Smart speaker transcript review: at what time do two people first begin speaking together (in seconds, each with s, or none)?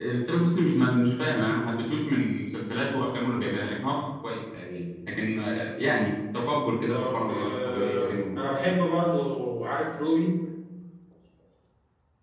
6.9 s